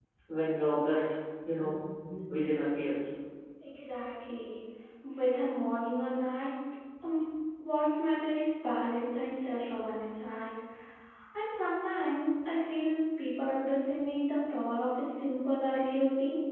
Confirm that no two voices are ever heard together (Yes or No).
Yes